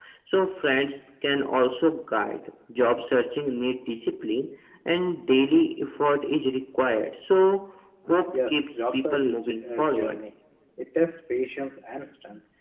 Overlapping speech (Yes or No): Yes